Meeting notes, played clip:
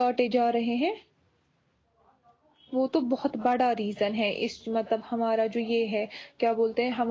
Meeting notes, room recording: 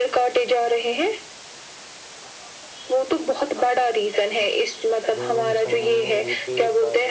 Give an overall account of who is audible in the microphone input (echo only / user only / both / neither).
both